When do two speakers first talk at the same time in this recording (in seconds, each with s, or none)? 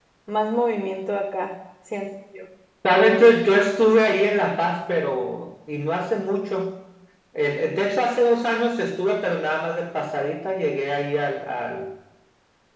none